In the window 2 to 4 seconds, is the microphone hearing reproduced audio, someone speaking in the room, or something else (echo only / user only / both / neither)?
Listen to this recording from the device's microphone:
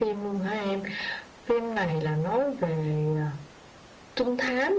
echo only